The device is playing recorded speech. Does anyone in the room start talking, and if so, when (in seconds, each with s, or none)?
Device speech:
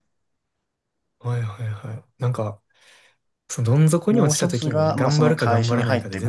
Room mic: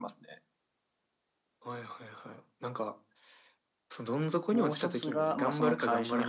none